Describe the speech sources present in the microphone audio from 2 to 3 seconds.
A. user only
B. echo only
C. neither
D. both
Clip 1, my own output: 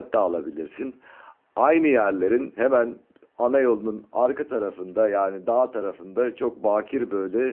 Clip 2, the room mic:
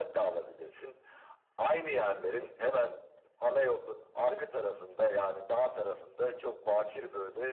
B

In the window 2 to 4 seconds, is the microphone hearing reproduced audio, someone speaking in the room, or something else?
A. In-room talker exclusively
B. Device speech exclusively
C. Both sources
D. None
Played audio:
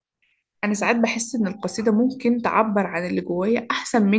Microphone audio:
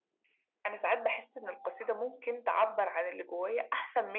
B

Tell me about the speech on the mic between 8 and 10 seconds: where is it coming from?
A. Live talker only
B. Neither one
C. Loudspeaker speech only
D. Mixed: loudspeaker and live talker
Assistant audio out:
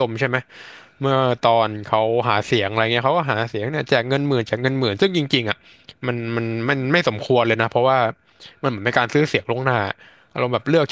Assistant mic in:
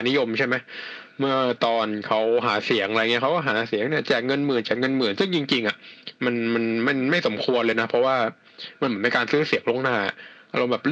C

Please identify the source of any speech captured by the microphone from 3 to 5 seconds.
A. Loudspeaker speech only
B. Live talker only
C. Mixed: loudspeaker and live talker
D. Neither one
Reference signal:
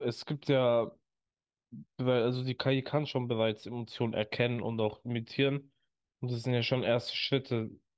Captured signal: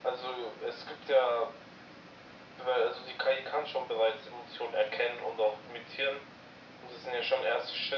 A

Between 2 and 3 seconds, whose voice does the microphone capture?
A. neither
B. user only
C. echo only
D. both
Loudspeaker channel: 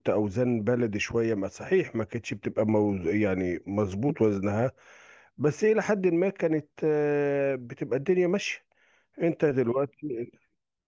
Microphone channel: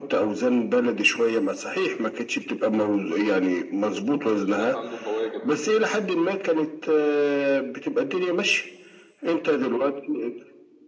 C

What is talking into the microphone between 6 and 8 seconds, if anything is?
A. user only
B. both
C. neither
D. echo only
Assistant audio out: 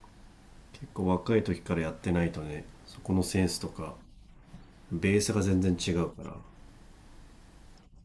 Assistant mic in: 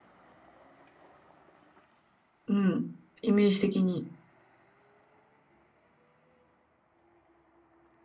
C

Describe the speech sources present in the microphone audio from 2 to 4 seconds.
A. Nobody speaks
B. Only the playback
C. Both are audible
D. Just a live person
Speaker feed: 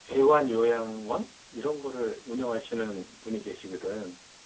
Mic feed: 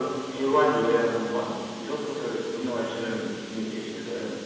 B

